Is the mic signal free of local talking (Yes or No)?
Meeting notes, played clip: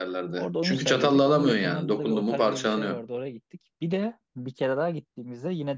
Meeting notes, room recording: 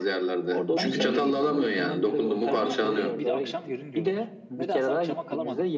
No